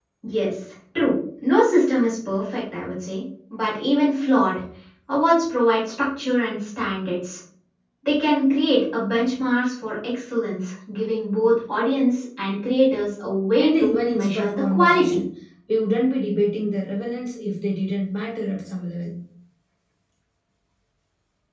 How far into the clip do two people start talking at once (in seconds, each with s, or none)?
13.6 s